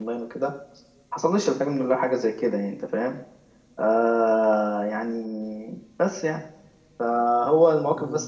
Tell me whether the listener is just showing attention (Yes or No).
Yes